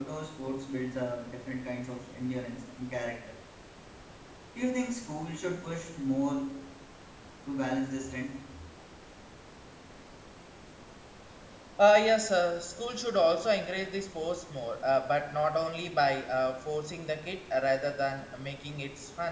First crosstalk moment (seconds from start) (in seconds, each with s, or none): none